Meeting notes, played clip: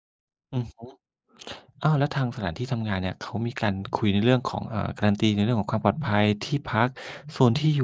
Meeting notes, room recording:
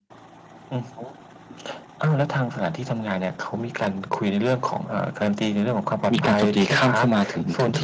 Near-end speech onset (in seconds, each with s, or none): 6.1 s